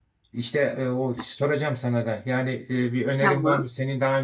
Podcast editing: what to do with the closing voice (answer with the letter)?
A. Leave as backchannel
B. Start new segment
A